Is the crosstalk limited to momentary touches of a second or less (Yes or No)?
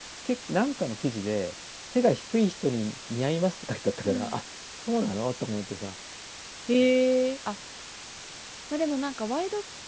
Yes